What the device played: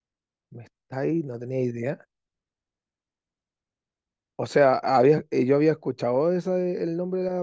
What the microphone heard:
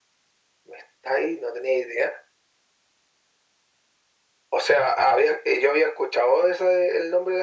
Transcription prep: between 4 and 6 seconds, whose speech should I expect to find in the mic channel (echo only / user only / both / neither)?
echo only